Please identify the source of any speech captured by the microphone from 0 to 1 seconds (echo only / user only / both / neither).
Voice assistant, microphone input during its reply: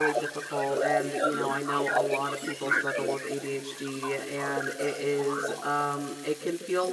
both